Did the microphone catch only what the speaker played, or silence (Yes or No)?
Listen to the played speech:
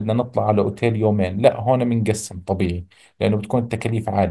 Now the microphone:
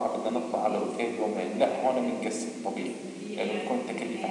No